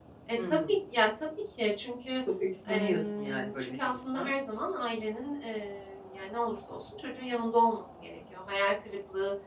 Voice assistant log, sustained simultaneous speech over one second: present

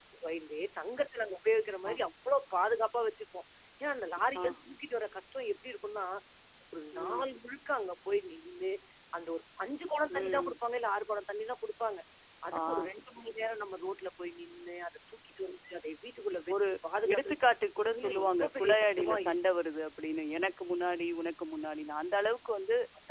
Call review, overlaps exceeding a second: present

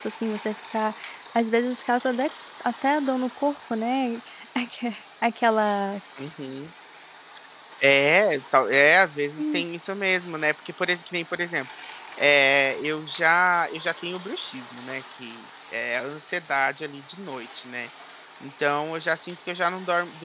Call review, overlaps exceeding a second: none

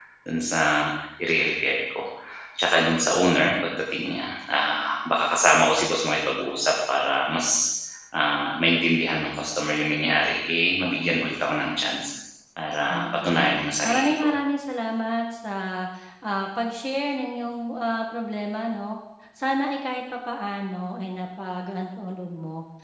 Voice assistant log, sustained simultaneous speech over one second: present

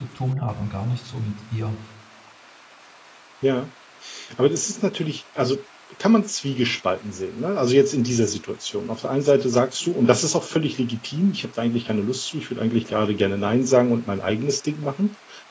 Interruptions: none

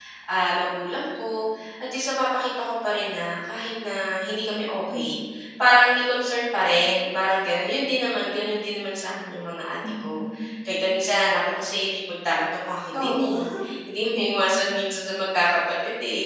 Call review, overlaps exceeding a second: none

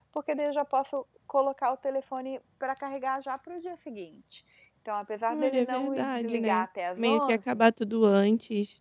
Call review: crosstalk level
present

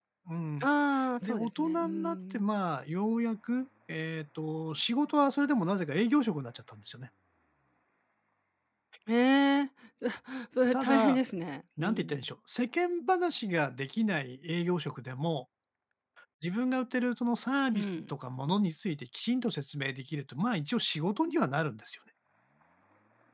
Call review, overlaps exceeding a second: present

